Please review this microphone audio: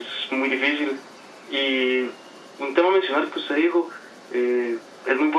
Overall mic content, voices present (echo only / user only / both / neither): echo only